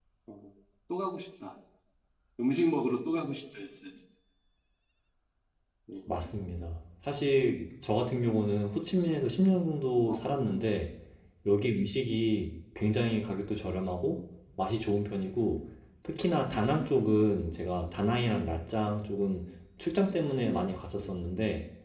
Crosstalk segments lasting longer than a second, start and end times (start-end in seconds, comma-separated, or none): none